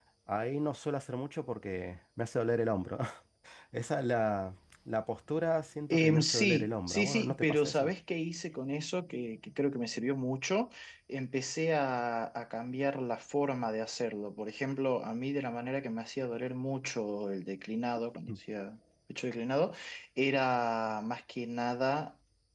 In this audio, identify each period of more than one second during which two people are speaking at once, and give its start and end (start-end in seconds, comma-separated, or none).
5.9-7.9